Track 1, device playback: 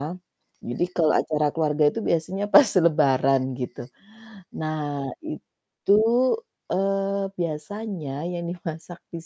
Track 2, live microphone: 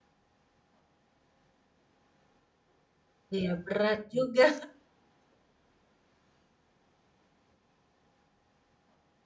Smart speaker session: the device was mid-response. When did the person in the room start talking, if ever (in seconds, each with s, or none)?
3.4 s